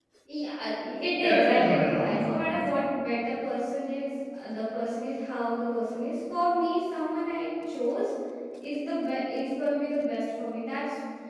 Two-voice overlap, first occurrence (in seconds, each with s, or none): 1.2 s